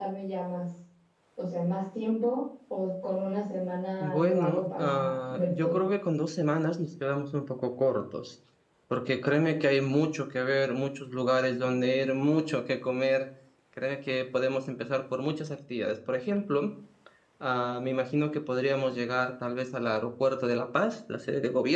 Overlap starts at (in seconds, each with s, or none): 4.0 s